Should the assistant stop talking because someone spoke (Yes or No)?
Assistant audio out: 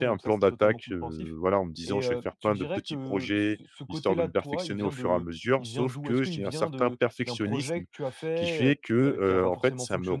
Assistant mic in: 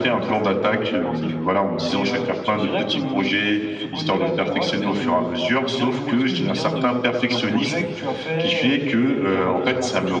No